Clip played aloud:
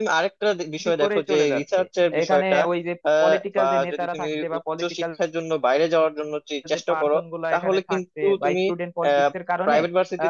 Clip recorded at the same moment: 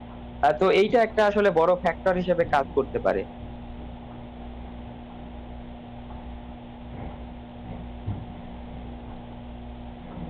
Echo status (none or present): none